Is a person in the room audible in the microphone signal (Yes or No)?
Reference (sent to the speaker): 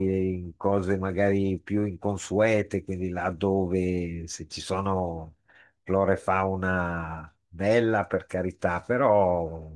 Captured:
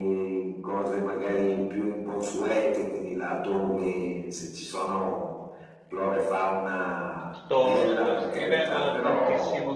Yes